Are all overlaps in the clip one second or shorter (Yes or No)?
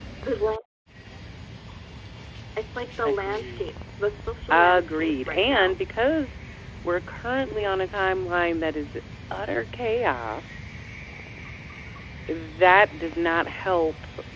No